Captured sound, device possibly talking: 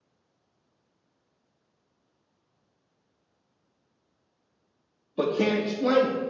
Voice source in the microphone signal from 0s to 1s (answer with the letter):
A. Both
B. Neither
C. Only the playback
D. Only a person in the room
B